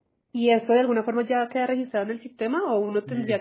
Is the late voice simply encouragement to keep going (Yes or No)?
No